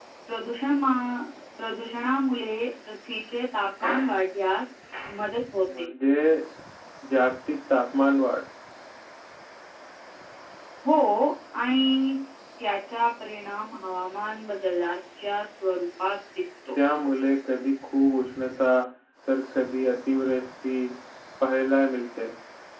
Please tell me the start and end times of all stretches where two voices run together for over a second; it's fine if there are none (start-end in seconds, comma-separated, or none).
none